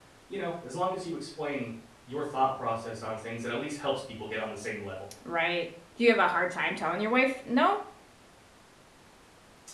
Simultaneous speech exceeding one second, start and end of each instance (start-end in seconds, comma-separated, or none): none